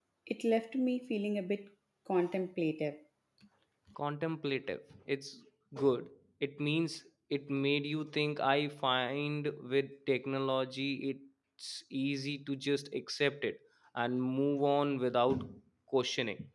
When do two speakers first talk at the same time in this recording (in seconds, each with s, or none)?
none